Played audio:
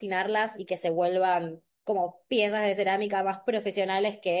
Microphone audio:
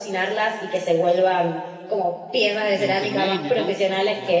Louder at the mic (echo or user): echo